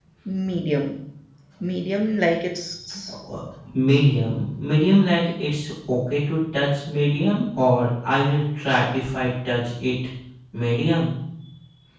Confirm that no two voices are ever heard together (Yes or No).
Yes